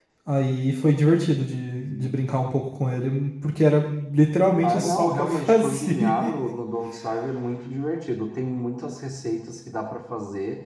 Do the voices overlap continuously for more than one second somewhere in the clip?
Yes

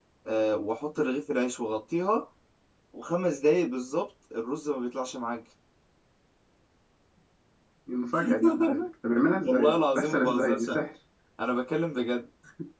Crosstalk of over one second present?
Yes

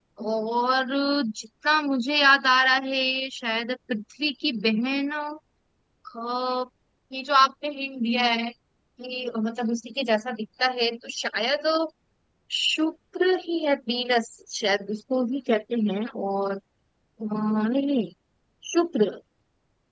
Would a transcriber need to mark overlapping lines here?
No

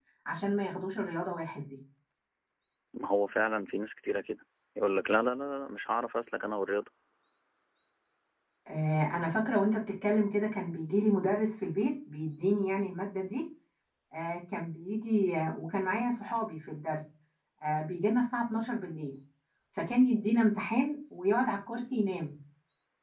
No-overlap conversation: Yes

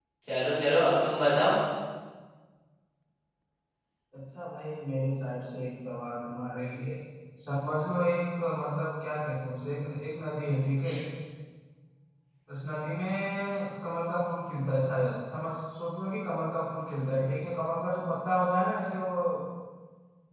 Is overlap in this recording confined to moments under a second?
Yes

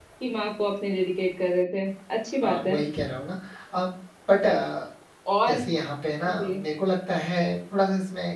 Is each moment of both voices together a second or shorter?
Yes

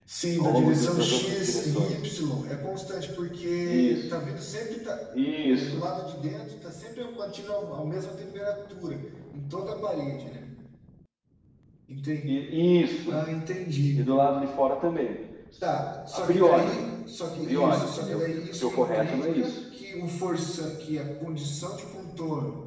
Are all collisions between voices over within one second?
No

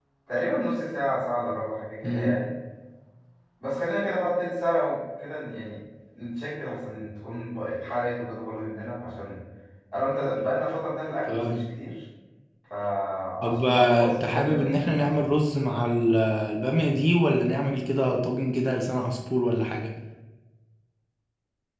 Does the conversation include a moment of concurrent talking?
Yes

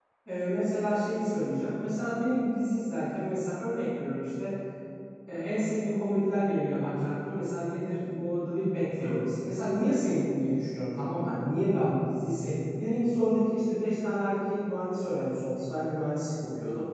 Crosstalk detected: No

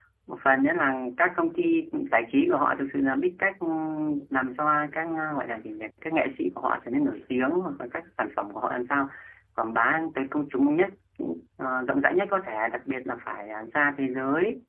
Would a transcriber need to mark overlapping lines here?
No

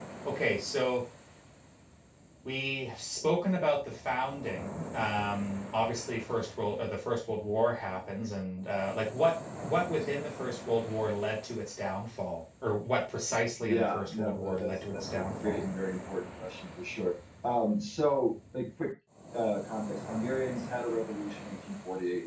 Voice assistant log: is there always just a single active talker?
No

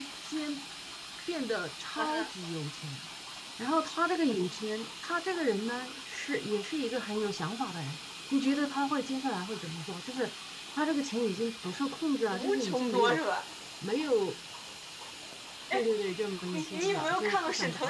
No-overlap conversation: No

